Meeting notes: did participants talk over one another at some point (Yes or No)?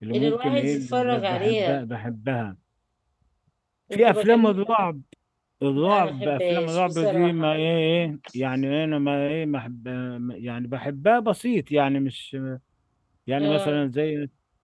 Yes